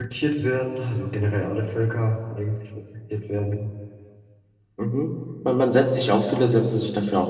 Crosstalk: none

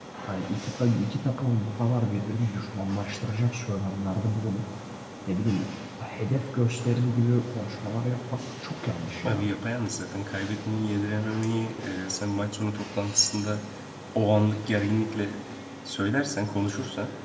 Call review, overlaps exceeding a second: none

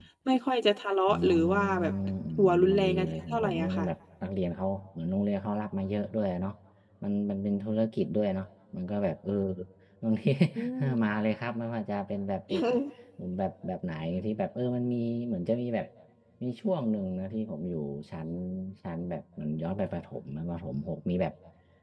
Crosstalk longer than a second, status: present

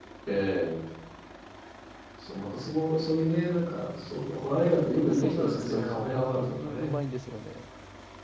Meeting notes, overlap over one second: present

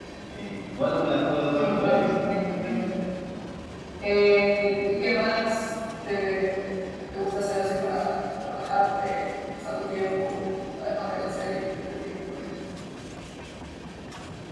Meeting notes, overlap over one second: present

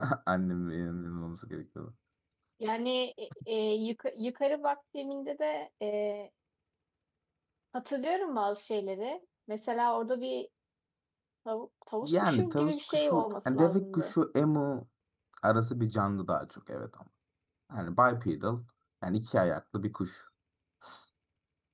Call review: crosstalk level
present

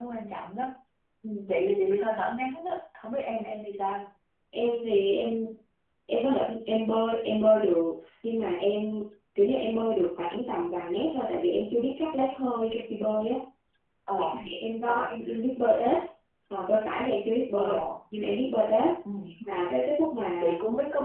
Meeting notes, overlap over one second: none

